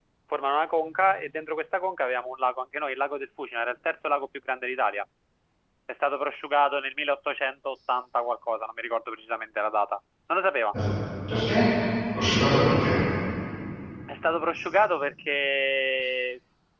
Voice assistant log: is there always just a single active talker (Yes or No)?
Yes